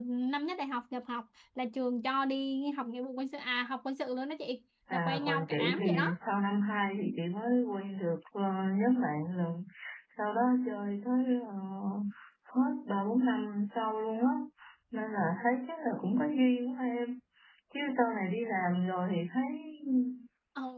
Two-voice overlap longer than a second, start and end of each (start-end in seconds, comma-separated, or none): 4.9-6.1